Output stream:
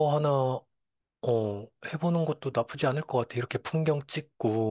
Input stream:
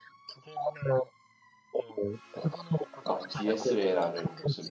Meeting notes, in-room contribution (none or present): present